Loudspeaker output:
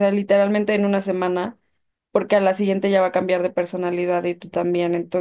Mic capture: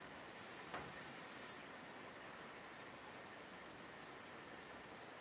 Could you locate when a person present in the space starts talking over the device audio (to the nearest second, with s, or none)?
none